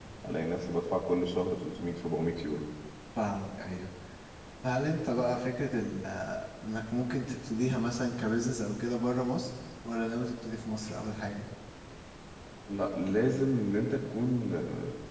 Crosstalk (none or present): none